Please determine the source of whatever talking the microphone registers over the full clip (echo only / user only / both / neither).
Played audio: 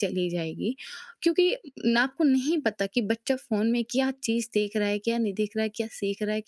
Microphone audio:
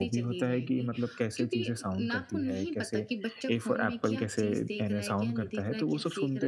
both